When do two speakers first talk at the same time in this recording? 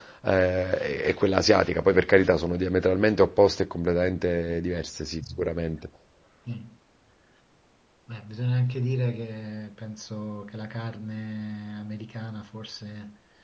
none

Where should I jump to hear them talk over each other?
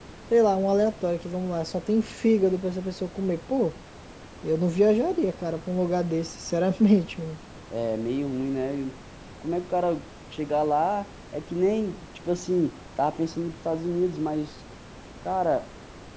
none

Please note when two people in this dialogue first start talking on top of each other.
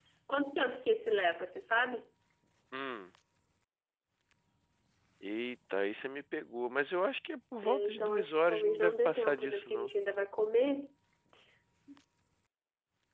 7.6 s

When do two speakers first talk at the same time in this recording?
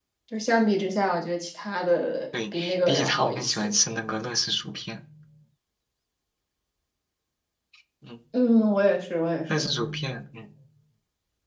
2.3 s

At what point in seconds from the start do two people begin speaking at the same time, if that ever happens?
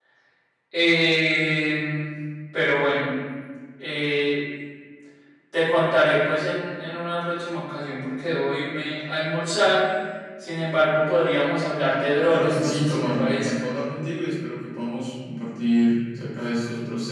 12.3 s

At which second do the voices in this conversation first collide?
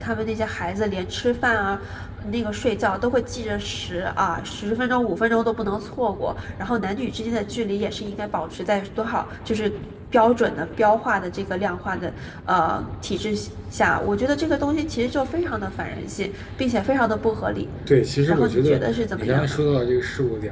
18.3 s

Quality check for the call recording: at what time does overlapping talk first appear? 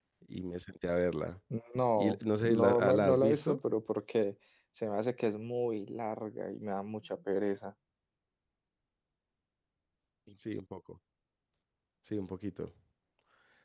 2.0 s

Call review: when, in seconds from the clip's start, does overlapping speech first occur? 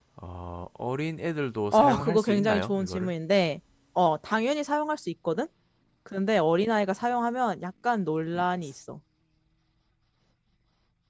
1.7 s

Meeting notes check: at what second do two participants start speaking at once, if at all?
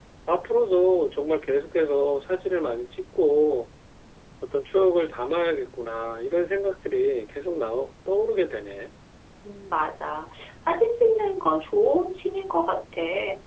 none

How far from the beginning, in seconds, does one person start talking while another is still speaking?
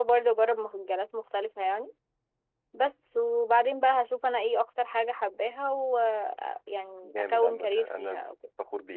7.0 s

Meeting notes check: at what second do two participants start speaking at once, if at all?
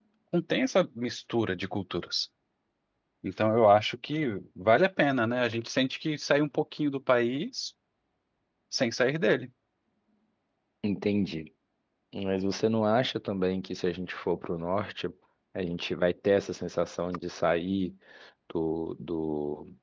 none

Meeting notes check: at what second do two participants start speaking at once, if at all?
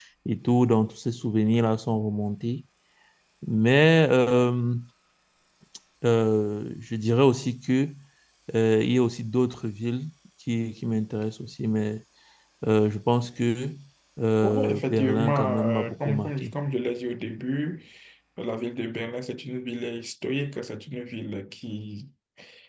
14.4 s

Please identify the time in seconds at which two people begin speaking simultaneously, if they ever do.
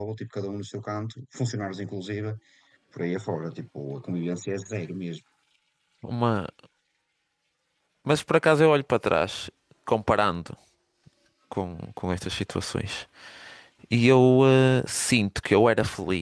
none

